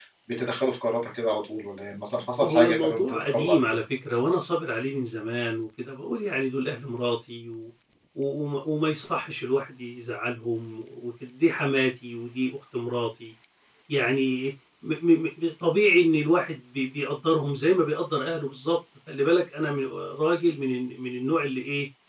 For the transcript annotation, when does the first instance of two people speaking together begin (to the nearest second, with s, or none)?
2 s